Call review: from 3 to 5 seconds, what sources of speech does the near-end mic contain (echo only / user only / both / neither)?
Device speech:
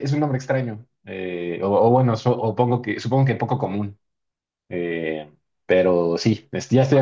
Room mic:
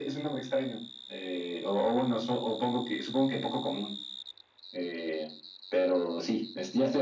echo only